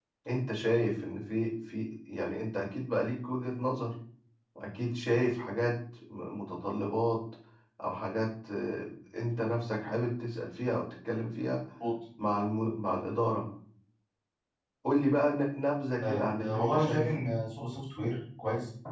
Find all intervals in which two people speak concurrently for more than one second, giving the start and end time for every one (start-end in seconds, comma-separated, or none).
16.0-17.2